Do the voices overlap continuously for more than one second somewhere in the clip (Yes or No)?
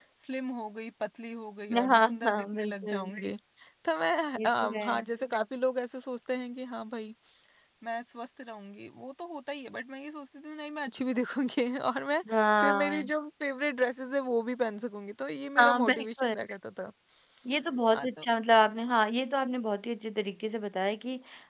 Yes